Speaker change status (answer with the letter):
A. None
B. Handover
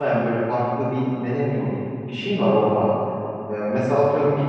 A